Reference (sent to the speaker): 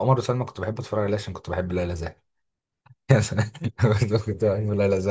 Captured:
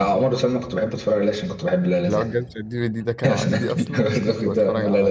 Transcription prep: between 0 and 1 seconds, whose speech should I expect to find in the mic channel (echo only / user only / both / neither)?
echo only